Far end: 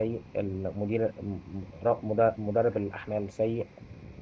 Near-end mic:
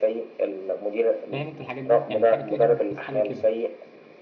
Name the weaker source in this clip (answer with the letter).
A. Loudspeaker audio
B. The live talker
B